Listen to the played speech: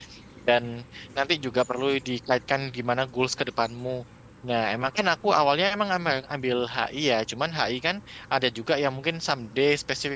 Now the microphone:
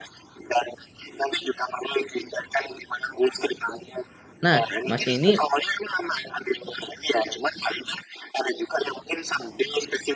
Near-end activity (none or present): present